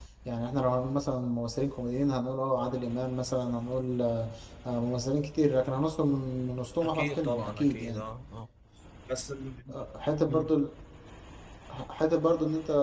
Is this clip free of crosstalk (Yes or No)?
No